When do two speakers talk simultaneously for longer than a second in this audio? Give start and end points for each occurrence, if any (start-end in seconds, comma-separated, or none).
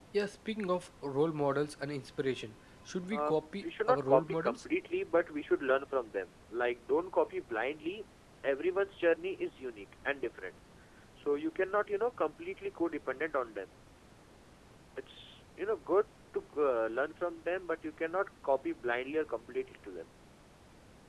3.1-4.7